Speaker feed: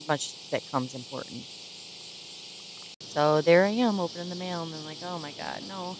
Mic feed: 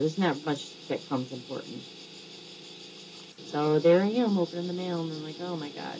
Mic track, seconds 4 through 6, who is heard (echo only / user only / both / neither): echo only